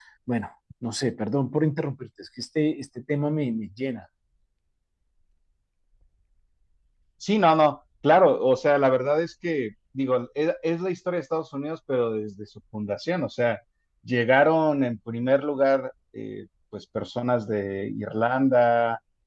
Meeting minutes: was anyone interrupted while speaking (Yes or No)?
No